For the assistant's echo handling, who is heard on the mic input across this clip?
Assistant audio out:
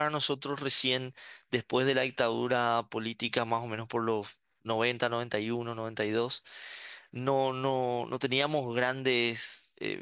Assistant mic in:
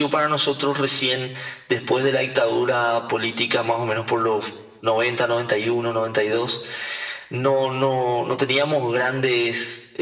echo only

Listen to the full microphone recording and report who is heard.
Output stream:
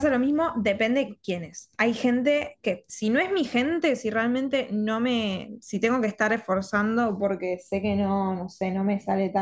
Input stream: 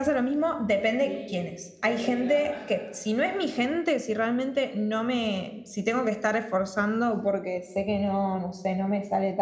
both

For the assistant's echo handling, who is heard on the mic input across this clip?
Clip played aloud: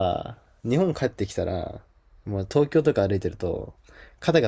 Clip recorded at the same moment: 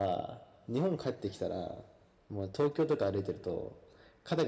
echo only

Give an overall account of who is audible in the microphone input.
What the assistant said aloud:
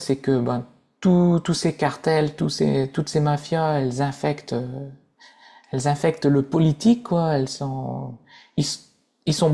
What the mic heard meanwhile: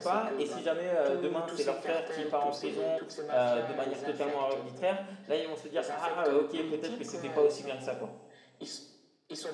both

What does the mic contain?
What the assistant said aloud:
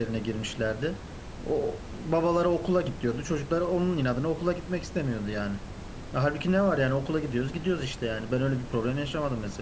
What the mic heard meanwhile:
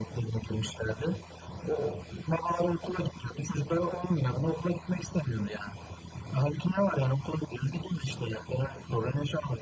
echo only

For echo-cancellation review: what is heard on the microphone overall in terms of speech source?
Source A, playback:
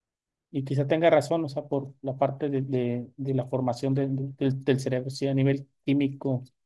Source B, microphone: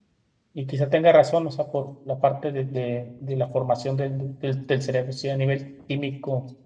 echo only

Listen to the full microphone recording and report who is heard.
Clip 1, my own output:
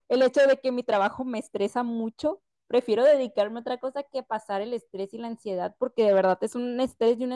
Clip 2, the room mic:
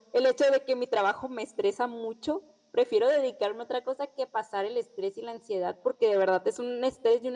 echo only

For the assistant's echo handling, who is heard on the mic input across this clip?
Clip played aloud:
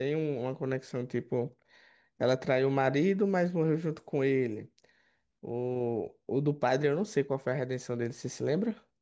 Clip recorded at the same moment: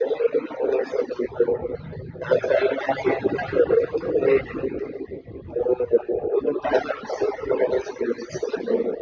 echo only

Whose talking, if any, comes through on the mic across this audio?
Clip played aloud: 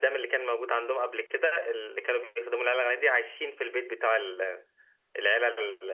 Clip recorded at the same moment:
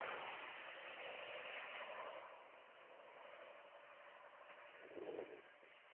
neither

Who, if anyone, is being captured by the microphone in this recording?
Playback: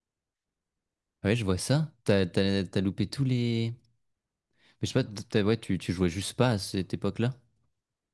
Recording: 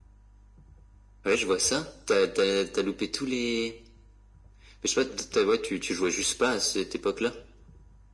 echo only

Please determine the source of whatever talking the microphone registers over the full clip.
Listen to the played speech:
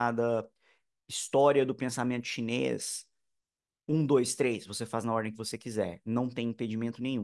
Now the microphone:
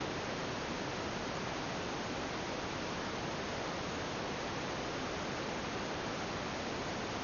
neither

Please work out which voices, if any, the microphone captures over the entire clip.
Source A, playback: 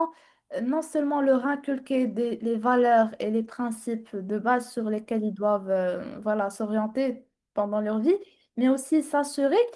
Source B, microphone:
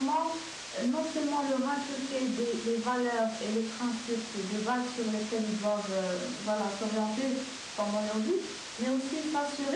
echo only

